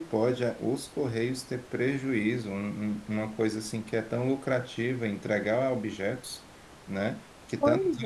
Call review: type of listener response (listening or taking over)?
listening